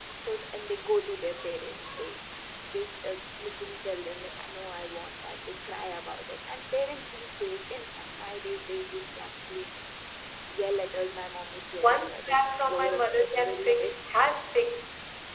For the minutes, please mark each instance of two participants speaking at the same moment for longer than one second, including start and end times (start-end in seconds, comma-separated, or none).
11.8-14.0